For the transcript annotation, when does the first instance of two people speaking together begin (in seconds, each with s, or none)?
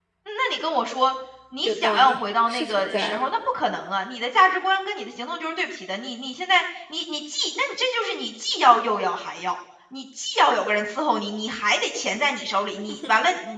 1.6 s